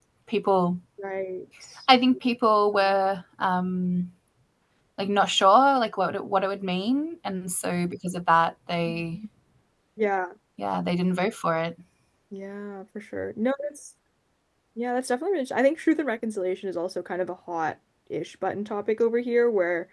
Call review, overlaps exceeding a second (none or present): none